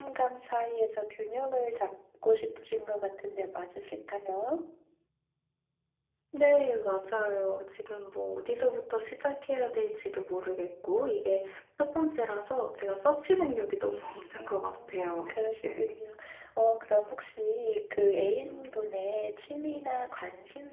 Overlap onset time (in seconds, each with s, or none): 14.4 s